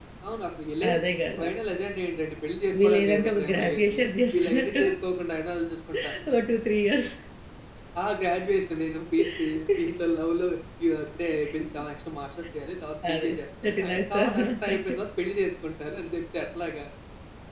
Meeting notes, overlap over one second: present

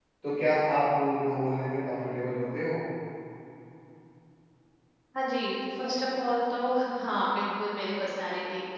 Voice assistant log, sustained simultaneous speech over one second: none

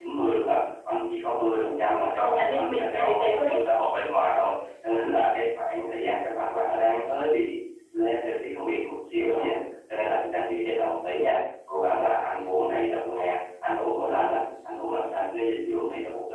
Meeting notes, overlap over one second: present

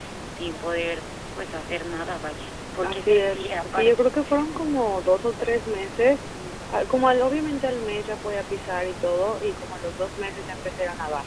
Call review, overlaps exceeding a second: present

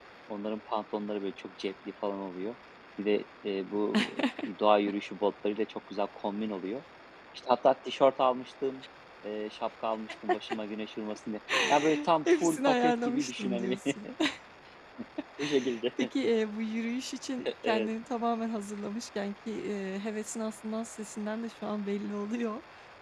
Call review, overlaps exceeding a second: present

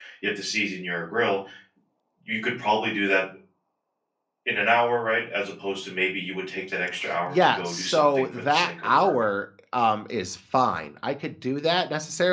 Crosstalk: present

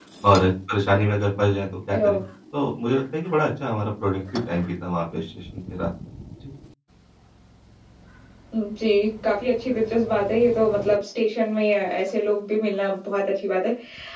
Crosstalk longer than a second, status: none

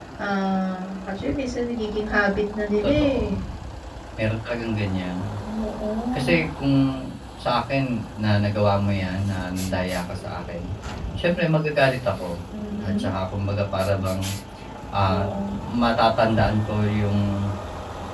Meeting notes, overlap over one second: none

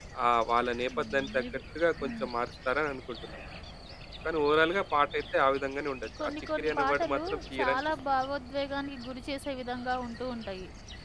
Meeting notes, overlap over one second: present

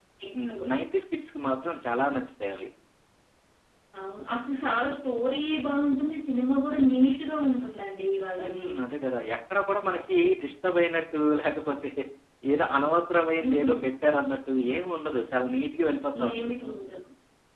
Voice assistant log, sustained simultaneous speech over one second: none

